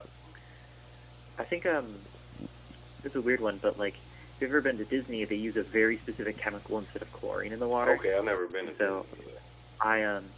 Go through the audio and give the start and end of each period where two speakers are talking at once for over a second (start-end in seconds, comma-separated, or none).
none